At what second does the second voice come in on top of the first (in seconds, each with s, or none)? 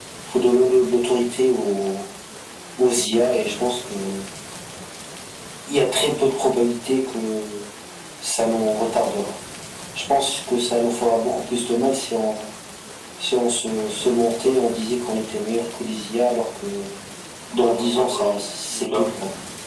17.5 s